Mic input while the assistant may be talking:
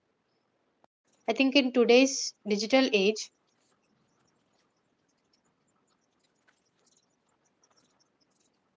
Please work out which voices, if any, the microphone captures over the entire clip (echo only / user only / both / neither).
user only